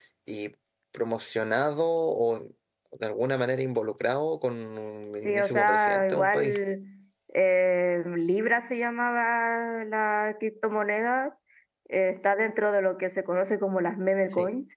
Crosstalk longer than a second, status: present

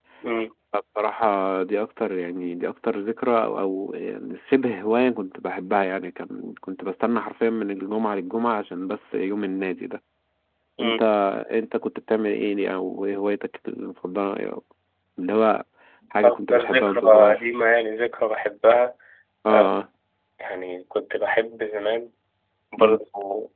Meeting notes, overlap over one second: present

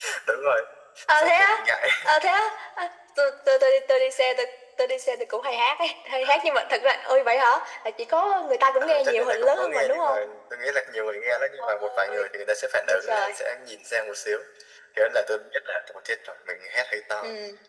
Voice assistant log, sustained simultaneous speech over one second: present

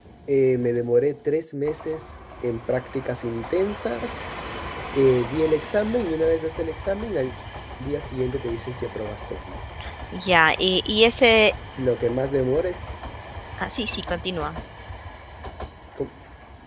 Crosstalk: none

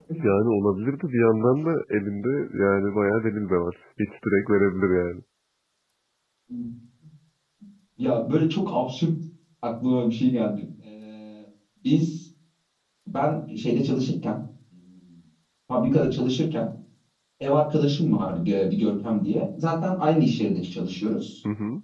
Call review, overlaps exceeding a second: none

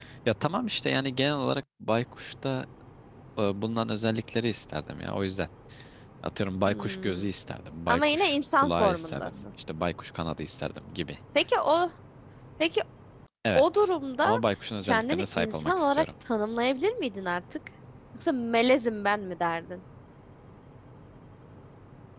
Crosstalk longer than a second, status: present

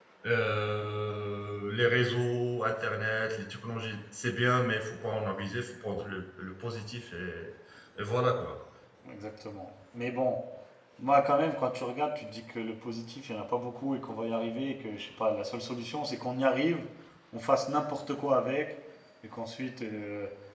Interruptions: none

